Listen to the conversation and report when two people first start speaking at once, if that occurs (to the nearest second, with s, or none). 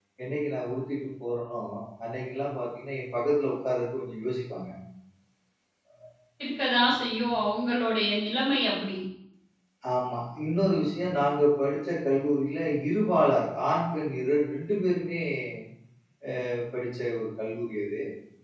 none